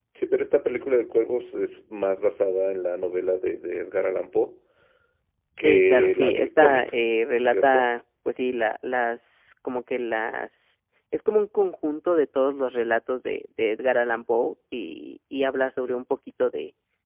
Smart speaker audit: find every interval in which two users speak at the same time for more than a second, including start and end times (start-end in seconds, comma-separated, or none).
5.6-6.9